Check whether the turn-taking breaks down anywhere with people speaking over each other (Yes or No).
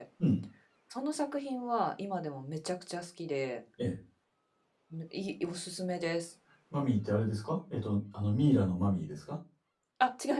No